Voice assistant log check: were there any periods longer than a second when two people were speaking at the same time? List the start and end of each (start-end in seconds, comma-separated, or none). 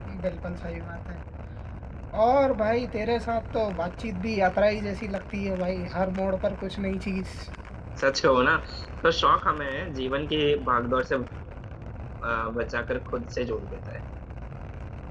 none